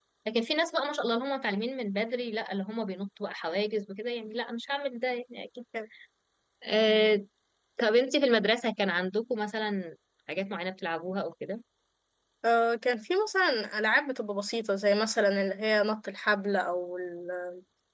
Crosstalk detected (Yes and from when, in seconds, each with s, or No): No